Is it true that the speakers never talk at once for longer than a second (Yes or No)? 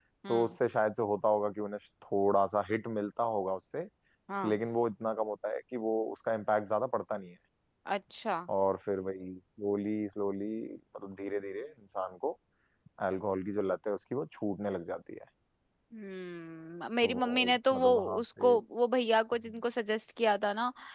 No